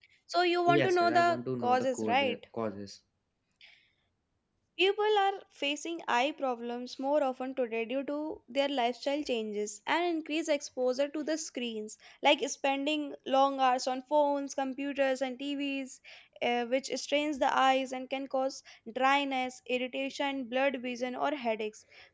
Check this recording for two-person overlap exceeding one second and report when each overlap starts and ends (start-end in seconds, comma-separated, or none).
0.8-2.4